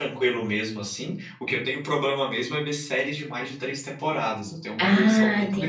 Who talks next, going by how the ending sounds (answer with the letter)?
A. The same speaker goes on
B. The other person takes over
B